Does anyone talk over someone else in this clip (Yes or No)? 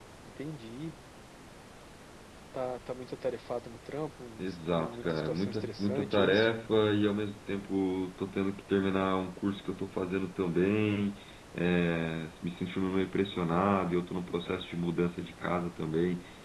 Yes